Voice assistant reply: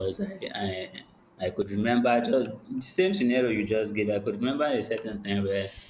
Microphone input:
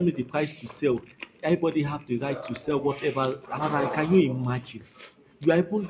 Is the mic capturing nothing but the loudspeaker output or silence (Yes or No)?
No